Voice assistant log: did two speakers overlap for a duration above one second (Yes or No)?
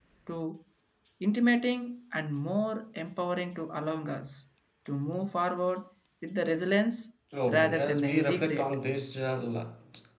Yes